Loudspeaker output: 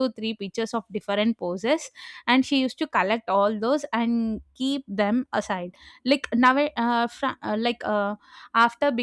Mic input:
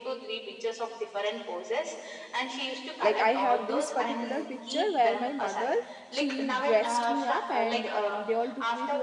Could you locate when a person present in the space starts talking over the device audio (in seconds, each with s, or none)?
3.0 s